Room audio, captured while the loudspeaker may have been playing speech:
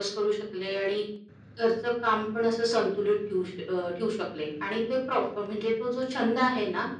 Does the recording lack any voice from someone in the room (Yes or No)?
Yes